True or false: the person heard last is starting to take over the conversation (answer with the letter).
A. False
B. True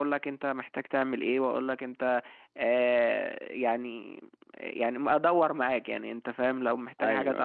A